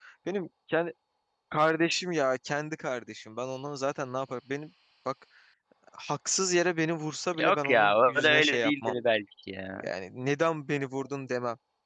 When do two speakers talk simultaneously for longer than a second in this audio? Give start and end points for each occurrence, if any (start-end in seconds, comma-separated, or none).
7.4-9.0